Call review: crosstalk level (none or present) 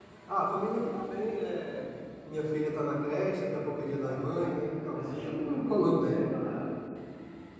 present